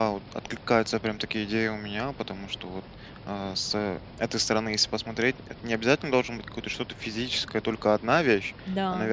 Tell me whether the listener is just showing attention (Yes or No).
Yes